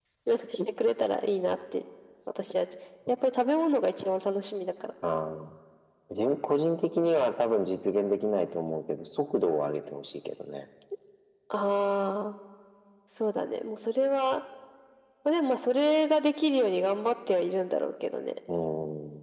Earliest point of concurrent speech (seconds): none

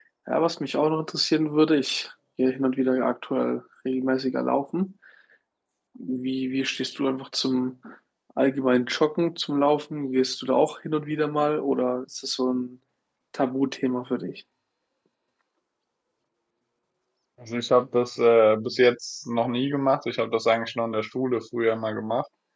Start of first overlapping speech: none

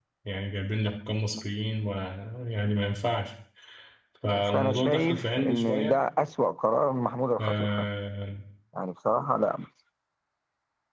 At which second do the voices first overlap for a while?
4.3 s

